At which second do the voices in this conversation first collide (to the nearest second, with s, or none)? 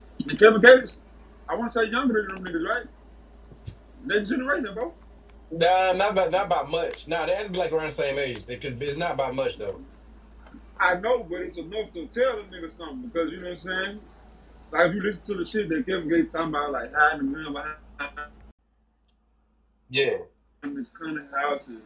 none